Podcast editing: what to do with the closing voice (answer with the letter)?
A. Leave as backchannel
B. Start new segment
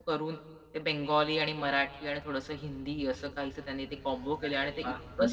B